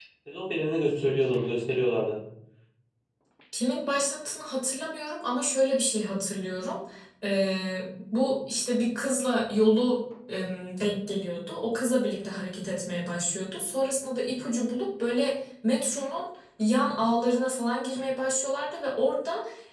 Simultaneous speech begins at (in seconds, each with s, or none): none